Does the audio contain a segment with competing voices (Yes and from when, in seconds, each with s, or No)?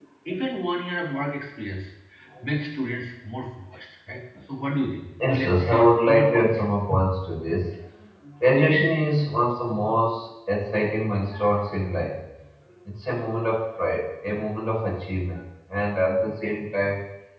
Yes, from 5.2 s